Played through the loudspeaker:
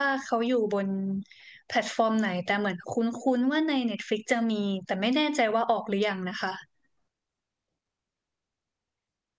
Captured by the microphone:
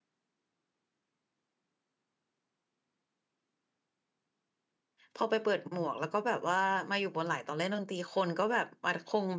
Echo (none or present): none